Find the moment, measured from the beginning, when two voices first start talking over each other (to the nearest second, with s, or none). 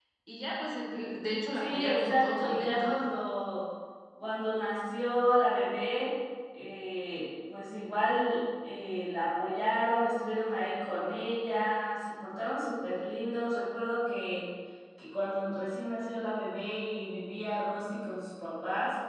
2 s